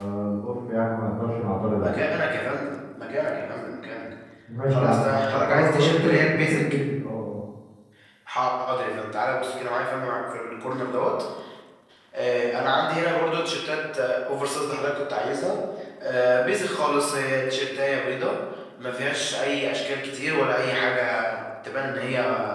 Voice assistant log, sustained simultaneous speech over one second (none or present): present